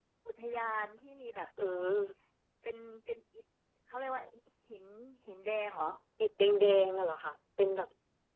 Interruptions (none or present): none